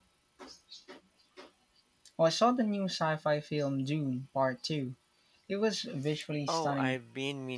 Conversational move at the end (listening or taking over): taking over